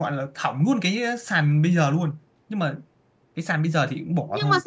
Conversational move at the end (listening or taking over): taking over